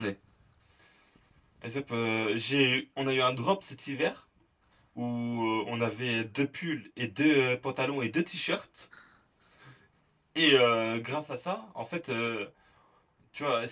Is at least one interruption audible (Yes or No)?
No